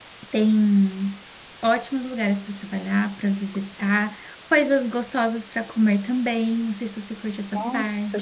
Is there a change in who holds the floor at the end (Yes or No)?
Yes